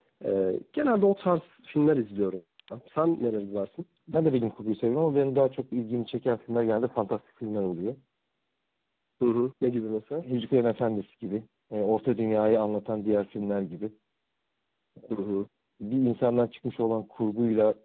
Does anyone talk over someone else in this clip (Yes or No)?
No